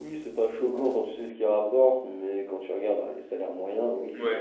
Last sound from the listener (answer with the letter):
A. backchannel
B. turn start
B